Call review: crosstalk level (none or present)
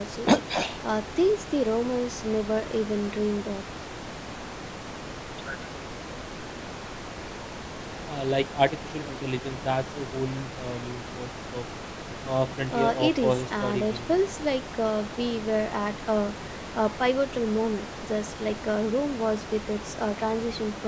present